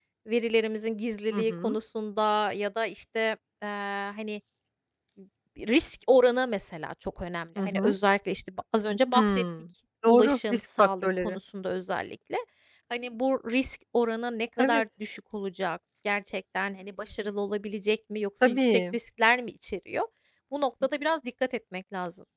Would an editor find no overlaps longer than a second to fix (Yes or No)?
No